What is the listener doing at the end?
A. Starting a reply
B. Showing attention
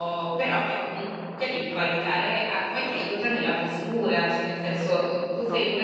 B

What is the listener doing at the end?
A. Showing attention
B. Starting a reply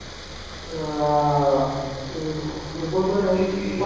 A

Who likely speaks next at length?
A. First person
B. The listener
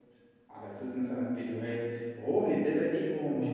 A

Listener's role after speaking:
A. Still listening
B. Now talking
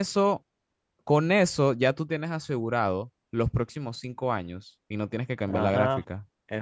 B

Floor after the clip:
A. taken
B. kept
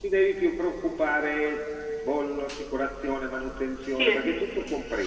B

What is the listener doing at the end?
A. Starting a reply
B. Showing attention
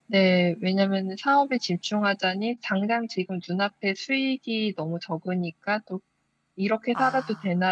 B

